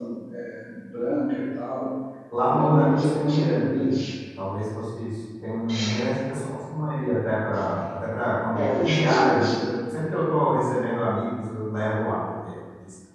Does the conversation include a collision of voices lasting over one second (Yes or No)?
Yes